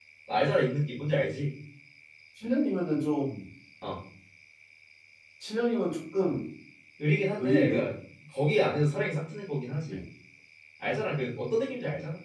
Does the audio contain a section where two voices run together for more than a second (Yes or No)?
No